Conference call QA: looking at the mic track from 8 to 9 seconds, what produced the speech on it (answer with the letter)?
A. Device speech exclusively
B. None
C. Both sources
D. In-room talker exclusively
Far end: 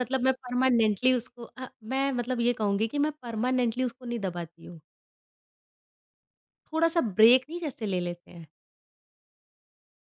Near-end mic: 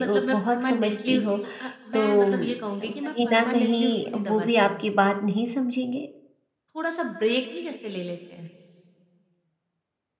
A